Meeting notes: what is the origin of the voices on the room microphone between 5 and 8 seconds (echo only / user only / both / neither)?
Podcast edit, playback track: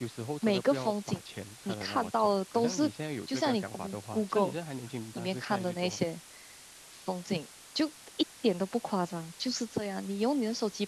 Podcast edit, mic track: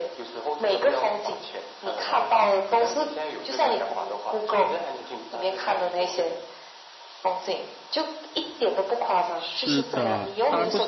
echo only